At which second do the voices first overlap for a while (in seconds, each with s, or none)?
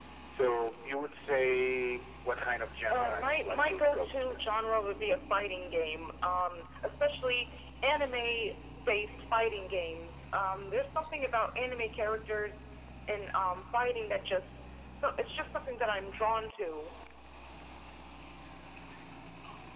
2.9 s